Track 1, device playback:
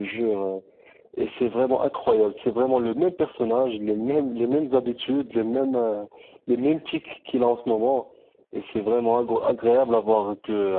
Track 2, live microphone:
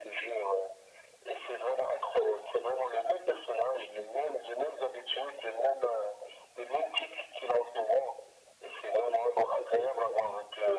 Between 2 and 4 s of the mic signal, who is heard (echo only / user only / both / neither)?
echo only